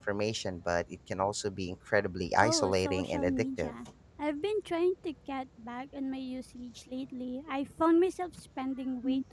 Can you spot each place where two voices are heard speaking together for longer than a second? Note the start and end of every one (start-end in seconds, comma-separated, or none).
2.4-3.7